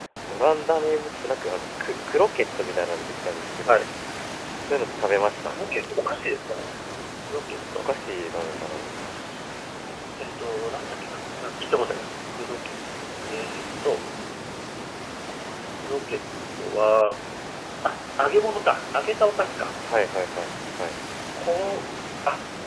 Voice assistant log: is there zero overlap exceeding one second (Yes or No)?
Yes